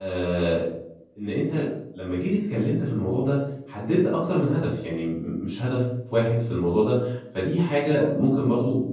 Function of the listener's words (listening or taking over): listening